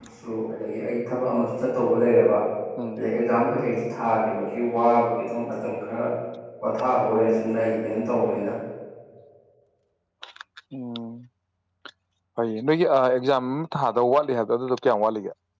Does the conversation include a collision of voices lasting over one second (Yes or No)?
No